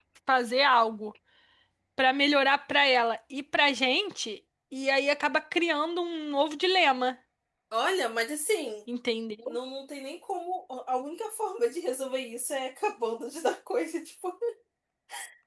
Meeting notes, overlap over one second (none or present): none